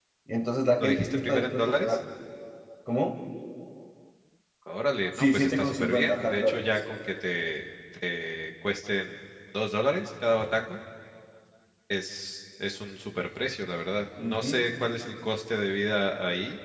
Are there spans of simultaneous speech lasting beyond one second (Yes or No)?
Yes